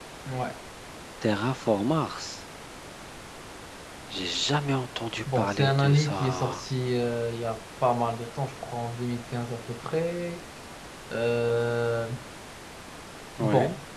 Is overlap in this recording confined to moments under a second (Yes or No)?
No